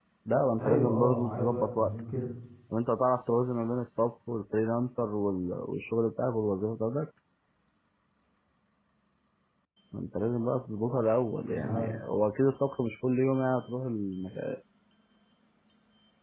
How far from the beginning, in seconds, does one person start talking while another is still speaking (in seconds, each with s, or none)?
0.6 s